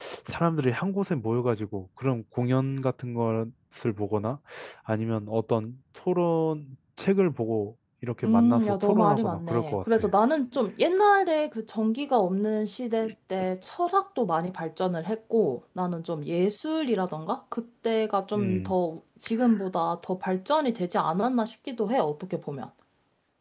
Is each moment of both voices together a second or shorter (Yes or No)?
No